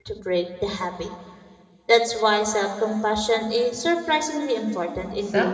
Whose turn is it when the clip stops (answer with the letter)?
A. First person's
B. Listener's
B